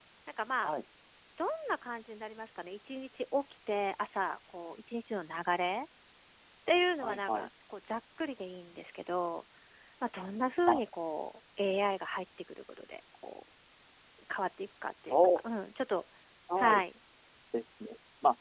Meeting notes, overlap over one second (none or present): none